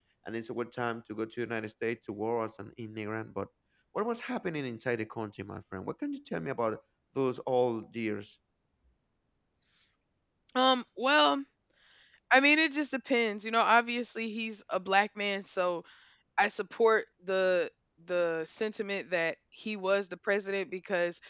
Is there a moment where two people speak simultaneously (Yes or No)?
No